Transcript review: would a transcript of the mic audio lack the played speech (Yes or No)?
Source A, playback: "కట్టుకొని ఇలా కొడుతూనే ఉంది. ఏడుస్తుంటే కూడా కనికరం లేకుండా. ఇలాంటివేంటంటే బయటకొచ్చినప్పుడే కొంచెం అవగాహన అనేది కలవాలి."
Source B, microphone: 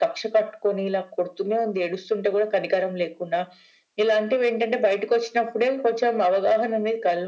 No